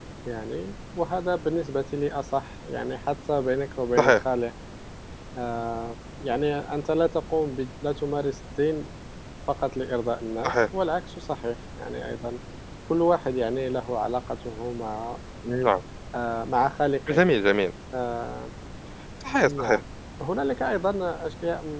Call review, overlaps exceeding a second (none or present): none